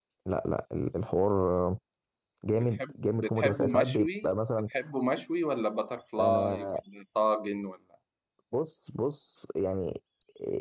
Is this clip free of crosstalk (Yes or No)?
No